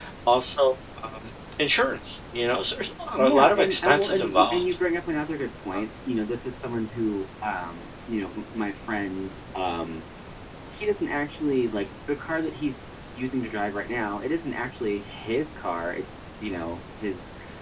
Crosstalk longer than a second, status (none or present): present